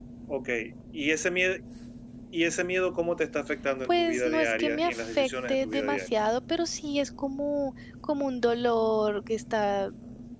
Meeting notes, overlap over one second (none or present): present